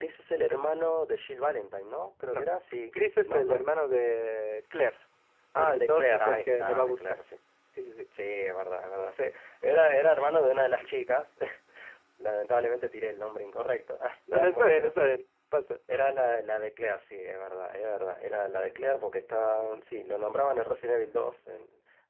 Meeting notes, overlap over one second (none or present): present